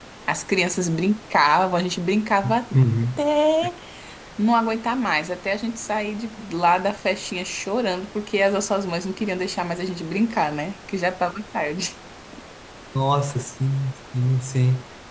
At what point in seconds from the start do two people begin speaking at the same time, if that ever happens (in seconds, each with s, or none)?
none